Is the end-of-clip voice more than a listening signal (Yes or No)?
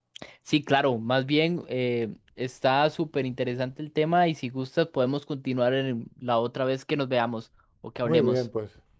Yes